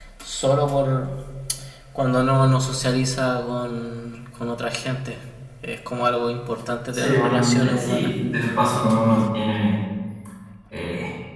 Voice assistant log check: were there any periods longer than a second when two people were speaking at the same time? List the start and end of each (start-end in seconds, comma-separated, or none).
6.9-8.1